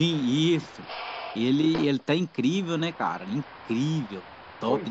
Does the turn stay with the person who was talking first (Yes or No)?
No